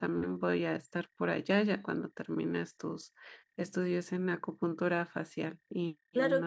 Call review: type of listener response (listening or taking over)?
taking over